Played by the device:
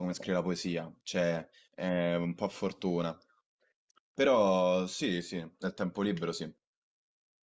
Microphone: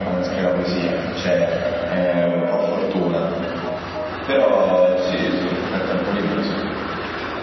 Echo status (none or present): present